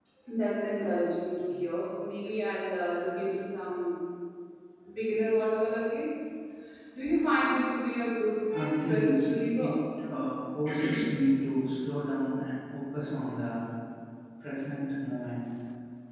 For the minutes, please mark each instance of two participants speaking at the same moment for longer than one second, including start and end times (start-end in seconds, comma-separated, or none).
8.5-9.7